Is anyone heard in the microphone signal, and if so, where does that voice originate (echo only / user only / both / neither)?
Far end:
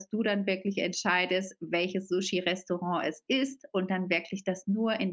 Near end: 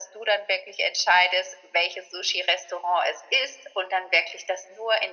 echo only